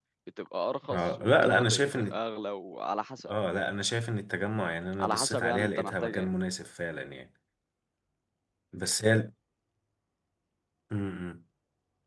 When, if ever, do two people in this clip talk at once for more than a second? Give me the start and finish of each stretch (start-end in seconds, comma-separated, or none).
0.9-2.2, 5.0-6.3